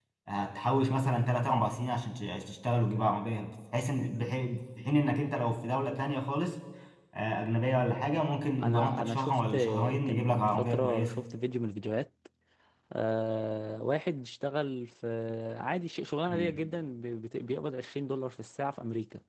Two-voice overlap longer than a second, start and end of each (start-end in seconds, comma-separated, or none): 8.6-11.2